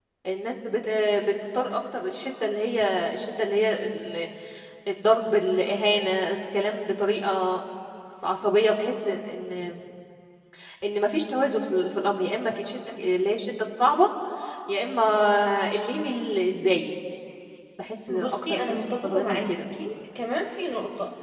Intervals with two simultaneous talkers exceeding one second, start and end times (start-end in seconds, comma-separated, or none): 18.1-19.4